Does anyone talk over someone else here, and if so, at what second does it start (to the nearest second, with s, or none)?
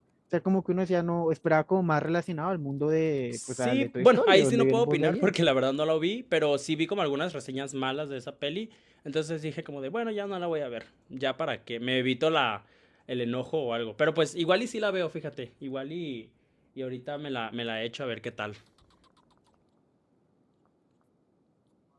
3 s